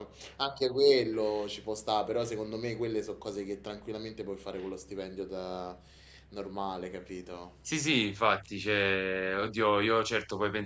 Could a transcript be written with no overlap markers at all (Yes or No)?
Yes